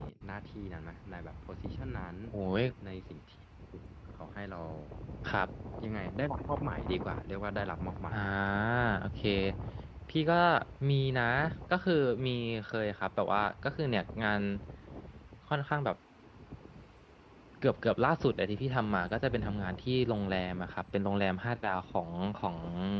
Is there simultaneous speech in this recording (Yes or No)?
No